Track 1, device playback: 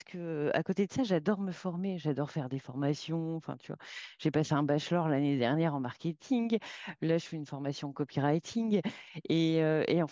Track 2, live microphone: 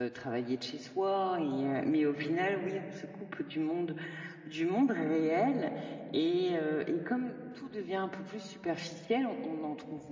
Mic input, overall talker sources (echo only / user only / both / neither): user only